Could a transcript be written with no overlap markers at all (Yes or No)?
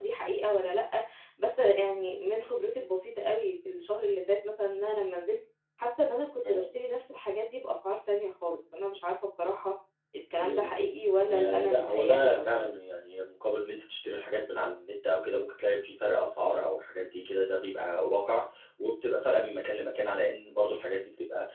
No